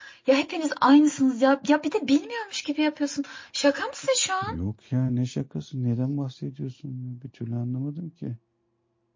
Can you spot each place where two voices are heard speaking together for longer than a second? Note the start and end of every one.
none

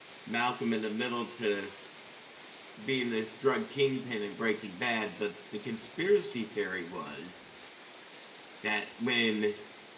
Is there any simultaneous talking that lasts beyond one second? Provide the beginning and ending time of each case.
none

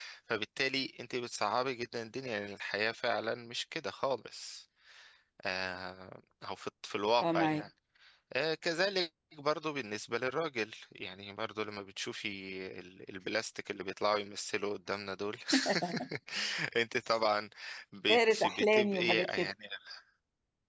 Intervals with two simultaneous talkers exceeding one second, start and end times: 18.1-19.5

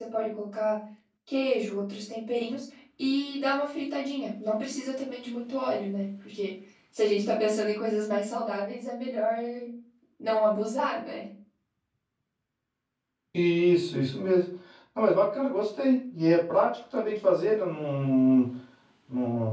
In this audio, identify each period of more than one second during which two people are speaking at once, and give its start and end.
none

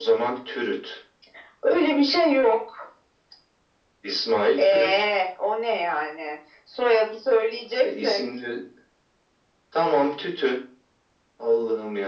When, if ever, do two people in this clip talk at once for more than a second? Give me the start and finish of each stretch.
none

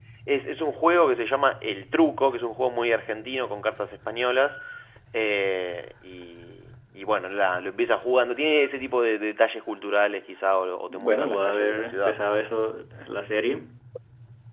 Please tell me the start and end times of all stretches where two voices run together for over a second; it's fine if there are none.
10.9-12.1

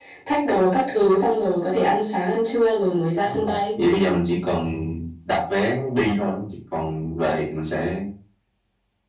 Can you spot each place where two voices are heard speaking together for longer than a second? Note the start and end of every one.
none

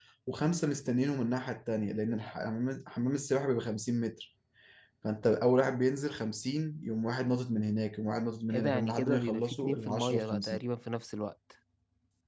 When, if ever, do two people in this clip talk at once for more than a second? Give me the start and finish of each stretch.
8.5-10.6

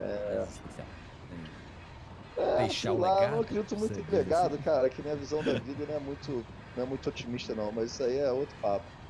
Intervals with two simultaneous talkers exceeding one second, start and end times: 2.5-4.5

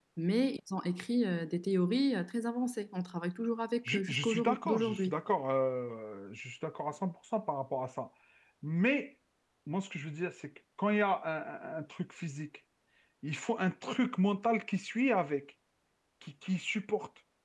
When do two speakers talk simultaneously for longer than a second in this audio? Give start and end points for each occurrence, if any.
3.9-5.2

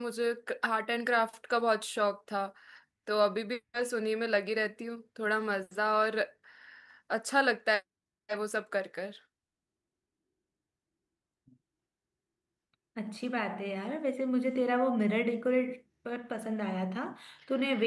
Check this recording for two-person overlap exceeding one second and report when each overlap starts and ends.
none

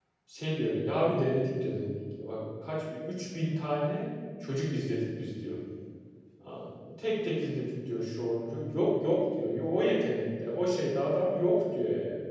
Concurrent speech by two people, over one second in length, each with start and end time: none

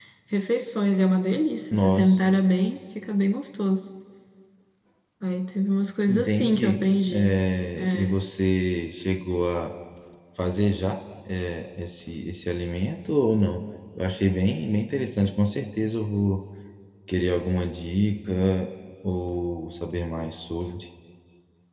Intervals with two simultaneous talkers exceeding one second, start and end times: 6.1-7.3

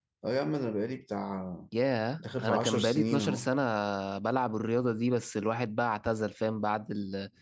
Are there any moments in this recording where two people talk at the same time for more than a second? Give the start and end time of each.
2.2-3.5

